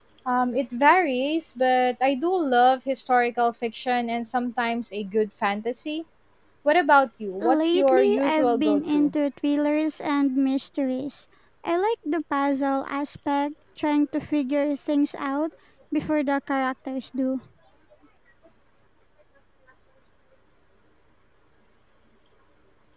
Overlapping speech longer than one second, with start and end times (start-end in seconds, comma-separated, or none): 7.4-9.1